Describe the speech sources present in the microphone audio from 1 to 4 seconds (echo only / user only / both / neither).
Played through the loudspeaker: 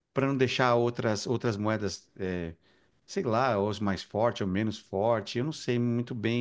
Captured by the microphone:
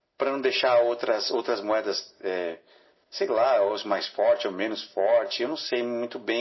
echo only